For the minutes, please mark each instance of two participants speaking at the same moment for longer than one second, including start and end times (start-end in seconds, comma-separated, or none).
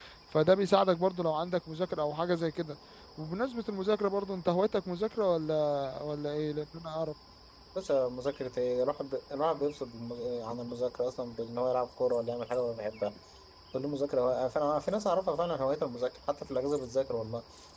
none